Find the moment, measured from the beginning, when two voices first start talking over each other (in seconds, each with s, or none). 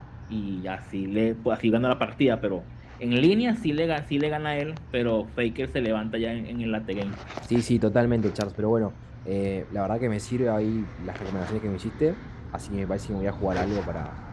none